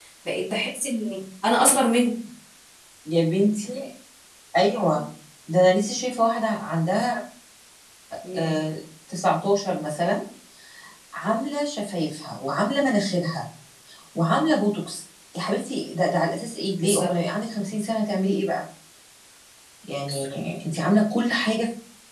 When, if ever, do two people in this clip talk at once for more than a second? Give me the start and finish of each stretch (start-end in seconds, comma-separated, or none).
none